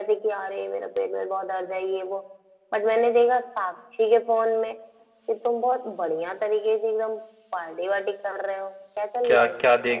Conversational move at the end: taking over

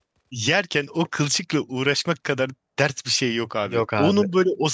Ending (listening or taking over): listening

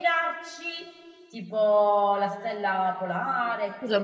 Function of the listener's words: taking over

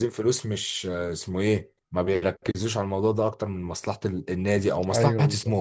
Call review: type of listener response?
listening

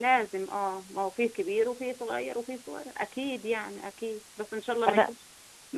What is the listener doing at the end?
listening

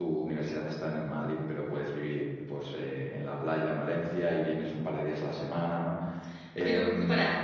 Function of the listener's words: taking over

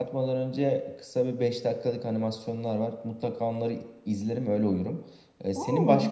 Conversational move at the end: listening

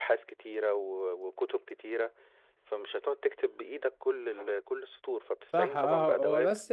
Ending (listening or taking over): taking over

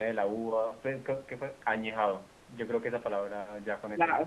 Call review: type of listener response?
taking over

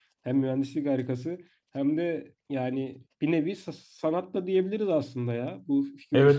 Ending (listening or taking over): taking over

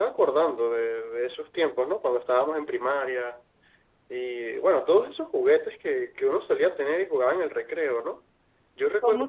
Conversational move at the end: taking over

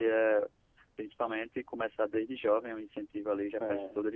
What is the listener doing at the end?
listening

